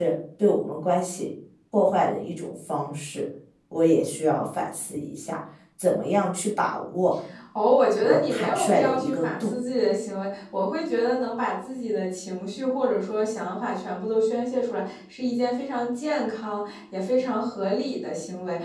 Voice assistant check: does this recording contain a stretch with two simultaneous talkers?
Yes, from 8.0 s

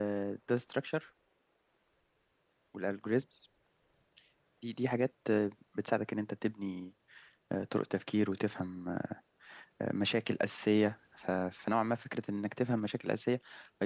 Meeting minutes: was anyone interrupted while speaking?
No

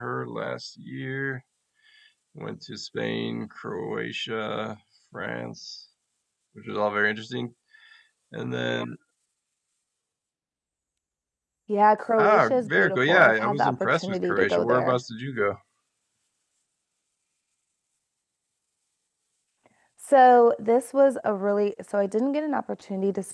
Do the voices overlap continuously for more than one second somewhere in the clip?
Yes, from 12.2 s

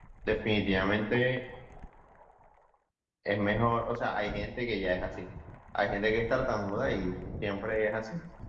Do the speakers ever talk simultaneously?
No

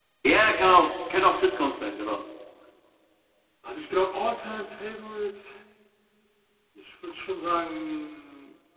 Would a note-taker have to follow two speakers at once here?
No

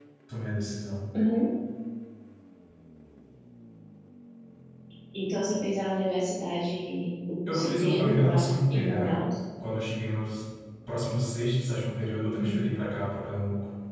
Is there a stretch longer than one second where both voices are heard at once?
Yes, from 7.5 s

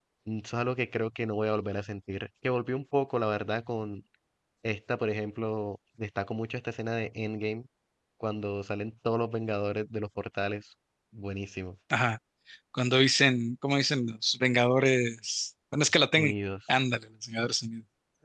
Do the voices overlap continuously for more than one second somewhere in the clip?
No

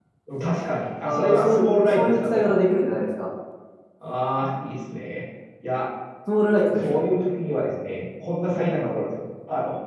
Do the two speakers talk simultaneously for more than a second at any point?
Yes, from 1.0 s

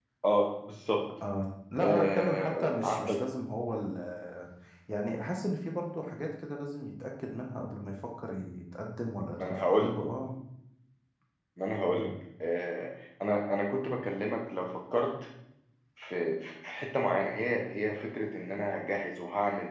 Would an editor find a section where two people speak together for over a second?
Yes, from 1.8 s

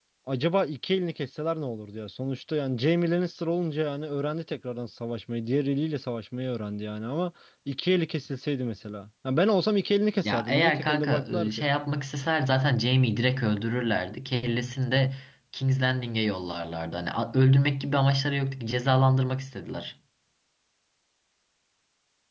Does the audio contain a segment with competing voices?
Yes, from 10.2 s

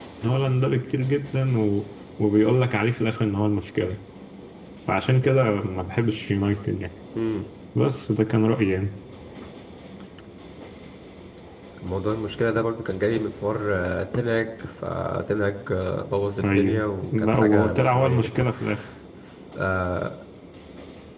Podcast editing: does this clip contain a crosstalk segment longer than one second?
Yes, from 16.4 s

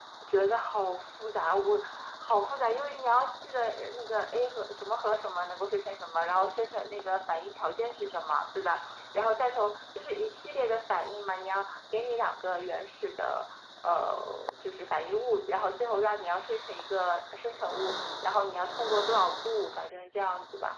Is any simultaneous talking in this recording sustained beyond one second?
No

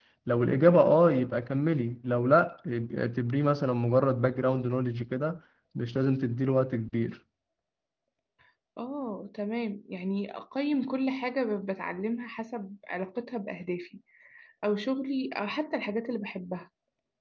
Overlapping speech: No

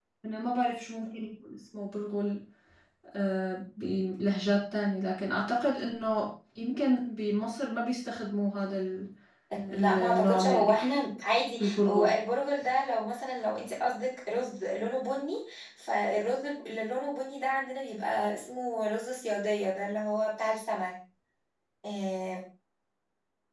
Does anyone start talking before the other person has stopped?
Yes, from 9.7 s

